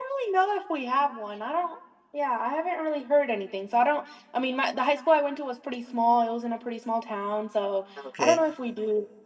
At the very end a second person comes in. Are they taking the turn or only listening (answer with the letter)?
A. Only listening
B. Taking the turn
A